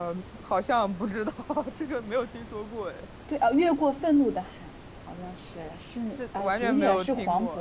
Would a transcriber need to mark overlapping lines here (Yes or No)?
Yes